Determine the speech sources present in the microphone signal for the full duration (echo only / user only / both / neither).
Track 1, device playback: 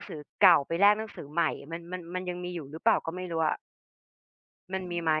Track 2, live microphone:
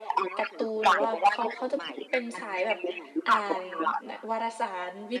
both